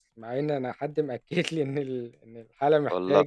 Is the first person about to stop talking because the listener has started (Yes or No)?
No